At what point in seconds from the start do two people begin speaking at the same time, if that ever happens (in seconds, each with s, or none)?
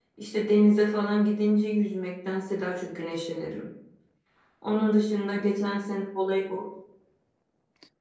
none